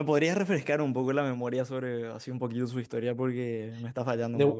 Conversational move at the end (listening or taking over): taking over